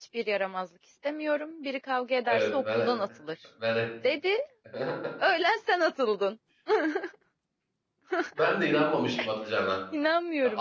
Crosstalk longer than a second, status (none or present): none